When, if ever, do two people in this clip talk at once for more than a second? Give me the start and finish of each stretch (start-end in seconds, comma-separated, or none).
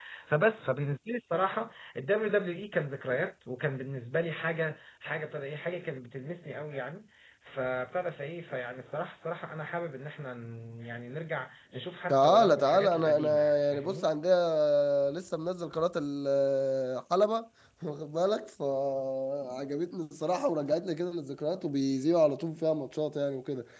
12.1-14.1